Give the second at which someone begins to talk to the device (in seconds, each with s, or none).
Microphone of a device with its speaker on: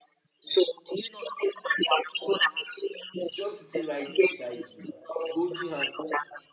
3.2 s